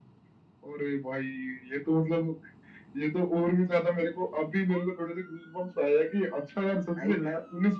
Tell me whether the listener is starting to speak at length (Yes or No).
No